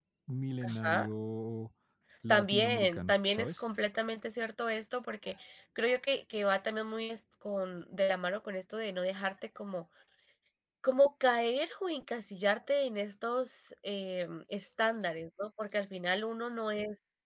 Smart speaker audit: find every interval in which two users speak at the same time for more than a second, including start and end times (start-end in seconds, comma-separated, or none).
2.3-3.6